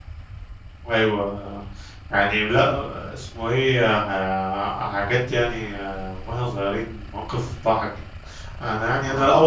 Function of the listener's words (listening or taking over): listening